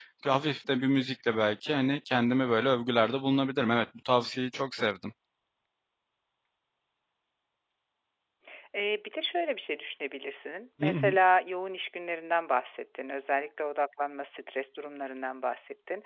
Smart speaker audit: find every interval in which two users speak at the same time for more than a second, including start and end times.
none

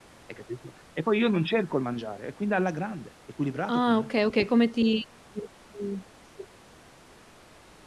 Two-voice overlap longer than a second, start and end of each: none

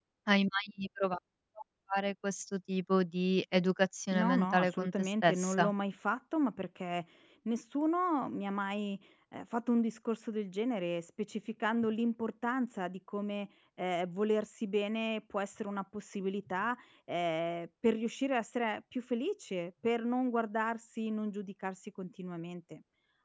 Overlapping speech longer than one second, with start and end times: 4.1-5.7

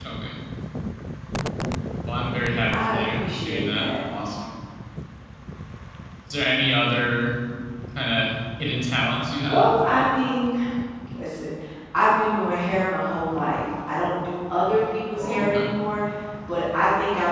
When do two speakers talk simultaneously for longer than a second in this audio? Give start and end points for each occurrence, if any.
2.7-3.9

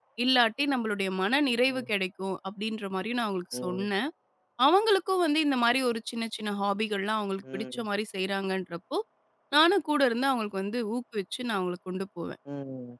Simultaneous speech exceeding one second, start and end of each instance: none

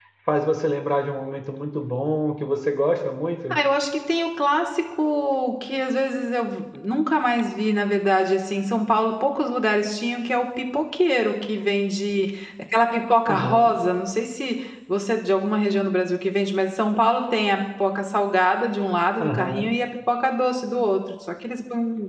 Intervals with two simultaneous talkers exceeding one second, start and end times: none

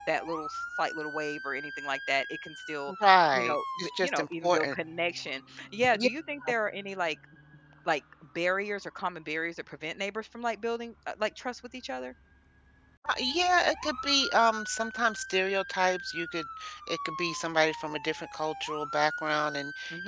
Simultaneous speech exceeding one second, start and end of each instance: 3.3-4.8

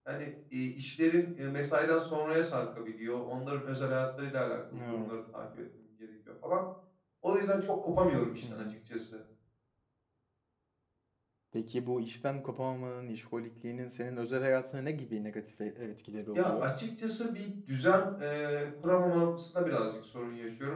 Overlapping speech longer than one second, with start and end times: none

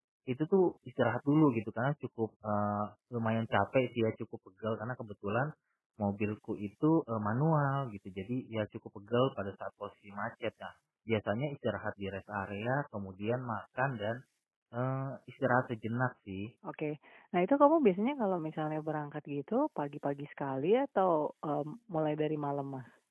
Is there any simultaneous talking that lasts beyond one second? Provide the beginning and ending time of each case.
none

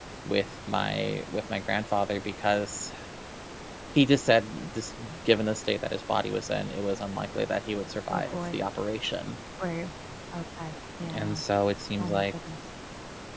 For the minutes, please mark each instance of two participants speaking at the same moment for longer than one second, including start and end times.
none

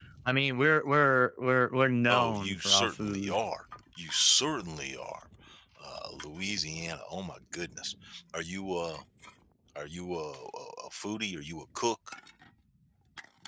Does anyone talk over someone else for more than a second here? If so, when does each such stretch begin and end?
2.1-3.4

